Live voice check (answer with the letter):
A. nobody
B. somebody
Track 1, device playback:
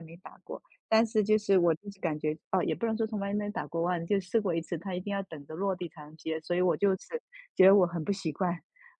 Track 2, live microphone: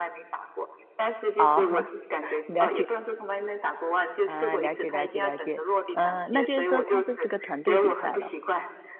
B